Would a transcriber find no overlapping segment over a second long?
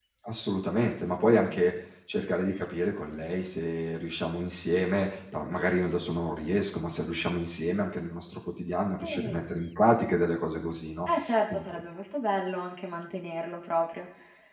Yes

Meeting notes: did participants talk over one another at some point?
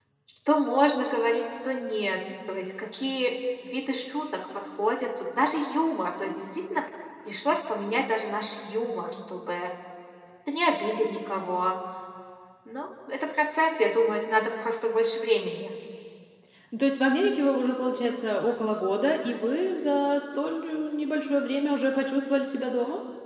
No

